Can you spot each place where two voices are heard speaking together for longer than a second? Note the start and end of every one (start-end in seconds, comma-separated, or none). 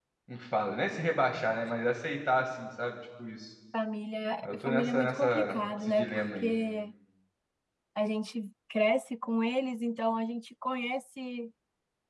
4.4-6.5